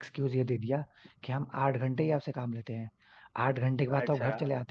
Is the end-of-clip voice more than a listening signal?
No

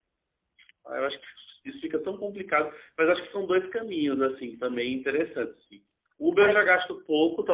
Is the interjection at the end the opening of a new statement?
No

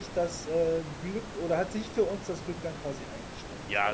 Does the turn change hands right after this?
Yes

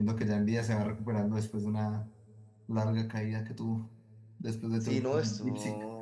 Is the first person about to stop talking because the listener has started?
Yes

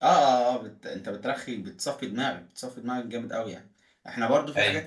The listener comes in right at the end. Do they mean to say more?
No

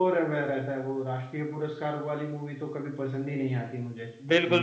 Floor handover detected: Yes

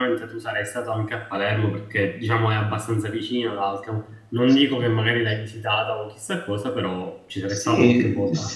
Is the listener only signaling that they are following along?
No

